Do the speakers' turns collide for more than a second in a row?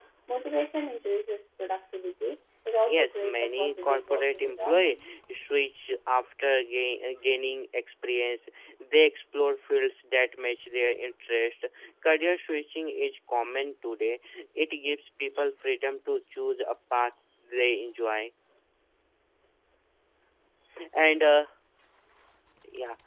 Yes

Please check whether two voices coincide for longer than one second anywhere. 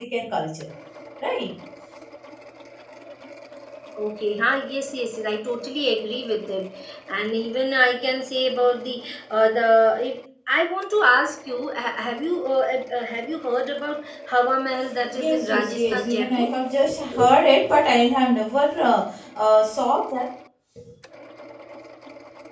Yes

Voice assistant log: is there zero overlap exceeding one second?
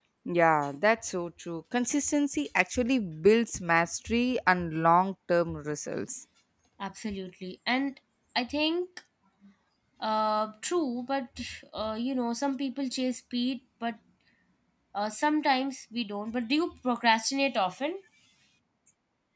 Yes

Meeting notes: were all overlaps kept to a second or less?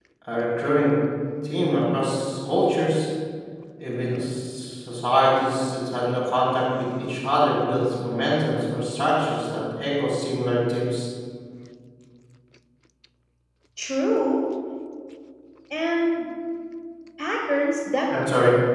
Yes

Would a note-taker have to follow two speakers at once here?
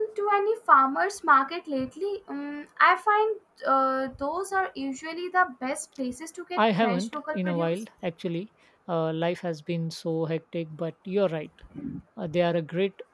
Yes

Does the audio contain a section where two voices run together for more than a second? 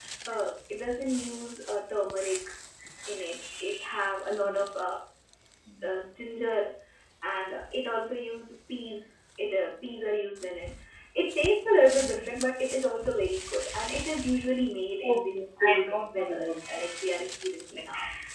Yes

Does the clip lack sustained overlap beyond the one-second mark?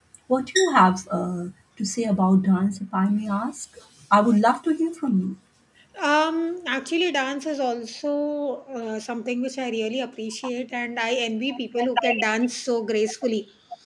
Yes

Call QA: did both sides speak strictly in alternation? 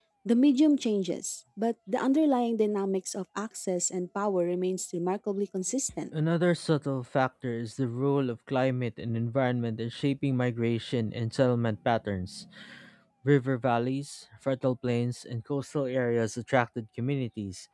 Yes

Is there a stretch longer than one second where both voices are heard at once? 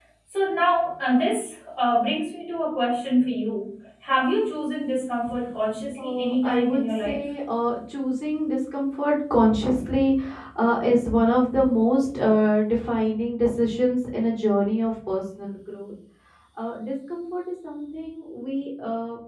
Yes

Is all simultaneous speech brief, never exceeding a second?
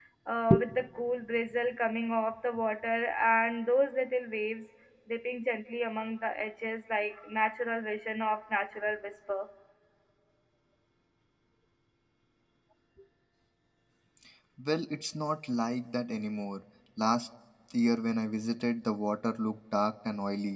Yes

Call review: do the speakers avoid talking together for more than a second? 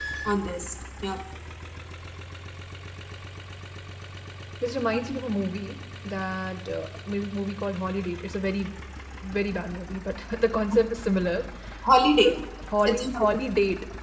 Yes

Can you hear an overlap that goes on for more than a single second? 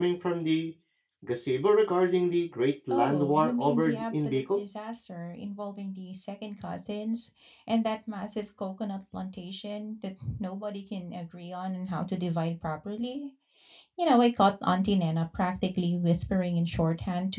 Yes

